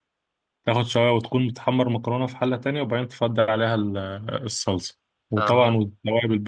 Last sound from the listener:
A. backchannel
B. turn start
A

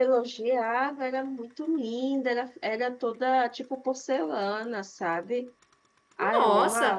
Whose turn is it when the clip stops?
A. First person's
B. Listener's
B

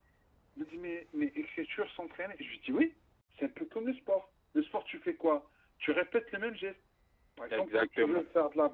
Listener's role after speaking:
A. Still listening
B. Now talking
A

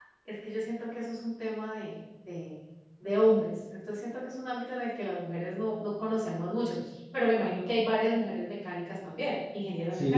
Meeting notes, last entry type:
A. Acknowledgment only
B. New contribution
B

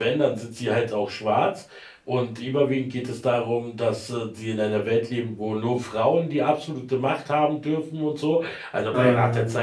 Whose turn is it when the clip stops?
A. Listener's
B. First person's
B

